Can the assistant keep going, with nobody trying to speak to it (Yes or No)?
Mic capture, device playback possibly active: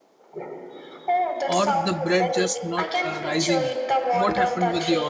No